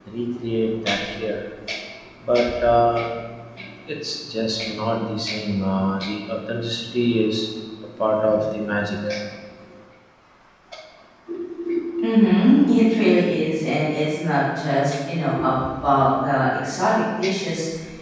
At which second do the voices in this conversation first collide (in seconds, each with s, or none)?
none